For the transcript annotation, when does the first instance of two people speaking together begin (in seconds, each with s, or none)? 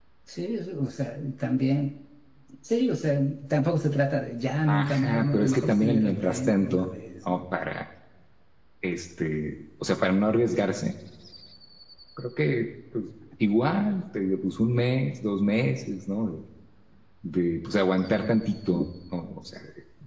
4.7 s